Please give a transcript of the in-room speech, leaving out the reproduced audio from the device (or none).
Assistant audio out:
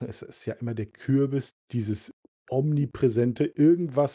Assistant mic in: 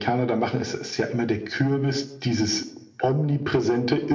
none